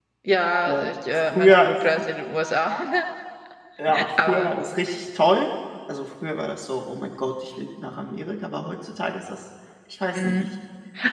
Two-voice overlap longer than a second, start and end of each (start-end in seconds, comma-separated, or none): 0.6-2.1